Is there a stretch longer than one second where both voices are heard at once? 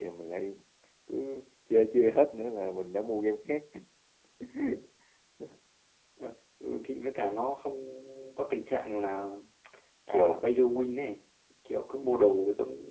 No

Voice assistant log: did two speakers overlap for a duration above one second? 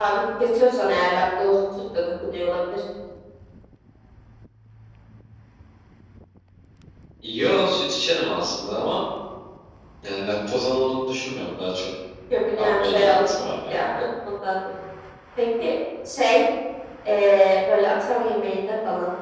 Yes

